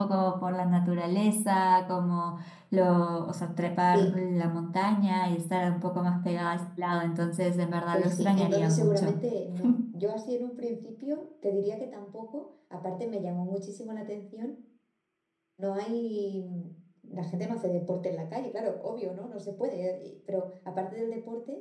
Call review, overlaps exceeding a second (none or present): present